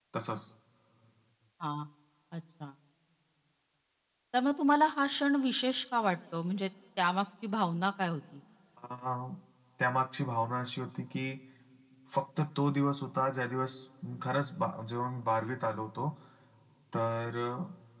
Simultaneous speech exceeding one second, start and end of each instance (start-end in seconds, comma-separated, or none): none